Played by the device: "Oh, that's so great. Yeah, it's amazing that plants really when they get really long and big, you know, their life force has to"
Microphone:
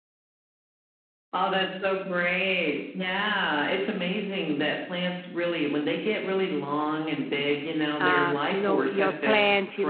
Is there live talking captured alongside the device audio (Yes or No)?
Yes